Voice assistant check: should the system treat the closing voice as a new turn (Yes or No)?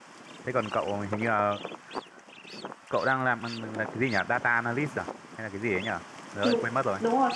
Yes